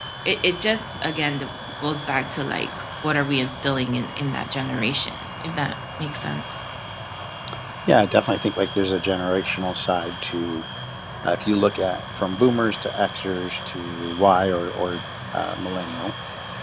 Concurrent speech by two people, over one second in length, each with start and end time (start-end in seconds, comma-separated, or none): none